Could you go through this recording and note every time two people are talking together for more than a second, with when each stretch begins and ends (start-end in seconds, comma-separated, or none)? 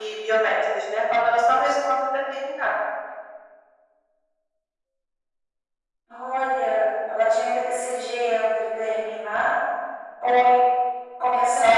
none